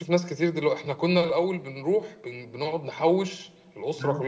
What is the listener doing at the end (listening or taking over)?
listening